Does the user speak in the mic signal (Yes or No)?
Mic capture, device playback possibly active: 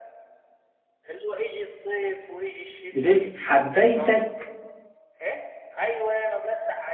Yes